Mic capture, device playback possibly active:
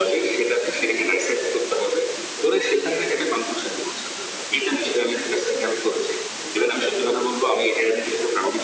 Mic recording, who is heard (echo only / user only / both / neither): echo only